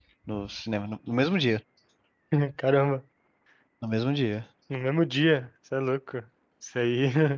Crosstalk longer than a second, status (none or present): none